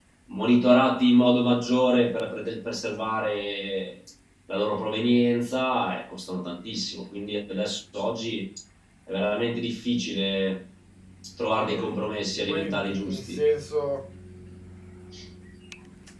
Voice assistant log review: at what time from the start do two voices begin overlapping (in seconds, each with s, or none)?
11.6 s